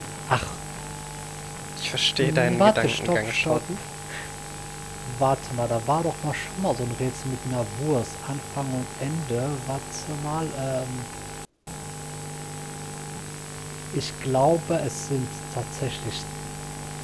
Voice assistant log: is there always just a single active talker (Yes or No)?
No